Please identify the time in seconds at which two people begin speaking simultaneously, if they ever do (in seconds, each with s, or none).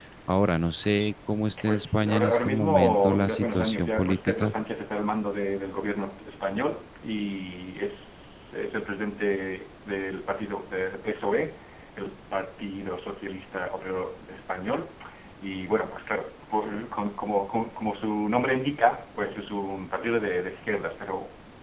1.6 s